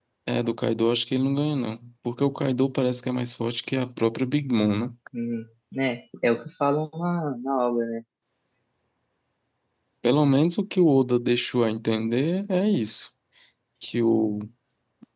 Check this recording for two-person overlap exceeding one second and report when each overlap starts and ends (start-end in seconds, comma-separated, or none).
none